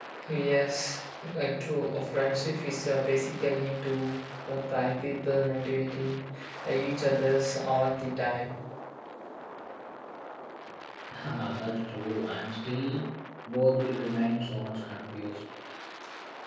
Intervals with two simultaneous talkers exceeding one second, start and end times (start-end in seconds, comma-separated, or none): none